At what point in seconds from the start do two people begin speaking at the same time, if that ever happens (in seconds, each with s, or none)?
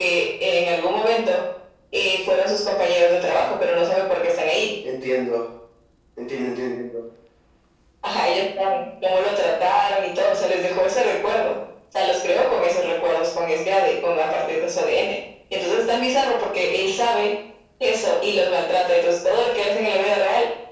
none